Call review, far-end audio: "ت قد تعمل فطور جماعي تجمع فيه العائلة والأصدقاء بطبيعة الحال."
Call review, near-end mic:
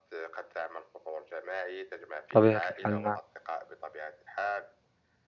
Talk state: both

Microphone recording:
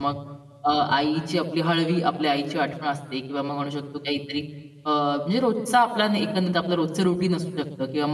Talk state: user only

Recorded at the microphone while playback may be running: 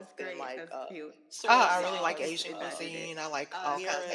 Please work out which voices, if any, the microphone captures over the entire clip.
both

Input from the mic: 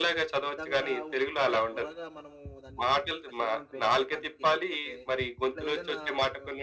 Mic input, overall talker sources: both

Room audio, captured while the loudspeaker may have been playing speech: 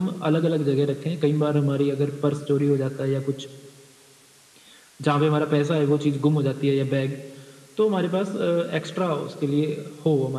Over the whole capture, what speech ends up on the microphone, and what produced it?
echo only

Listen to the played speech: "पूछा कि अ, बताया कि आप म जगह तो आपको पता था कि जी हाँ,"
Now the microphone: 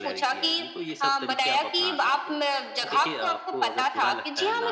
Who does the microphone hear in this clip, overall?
both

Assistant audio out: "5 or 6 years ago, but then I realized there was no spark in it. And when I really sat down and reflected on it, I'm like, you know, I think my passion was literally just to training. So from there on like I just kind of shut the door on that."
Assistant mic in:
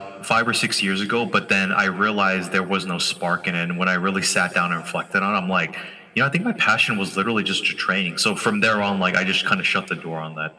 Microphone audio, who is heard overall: echo only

